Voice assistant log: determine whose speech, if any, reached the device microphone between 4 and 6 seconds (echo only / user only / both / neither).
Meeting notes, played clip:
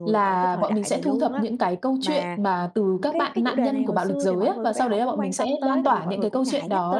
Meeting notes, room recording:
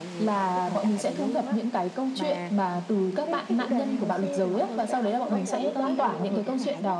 both